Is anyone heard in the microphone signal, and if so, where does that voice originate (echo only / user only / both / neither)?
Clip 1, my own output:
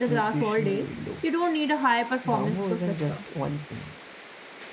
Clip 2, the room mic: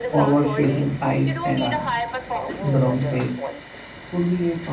both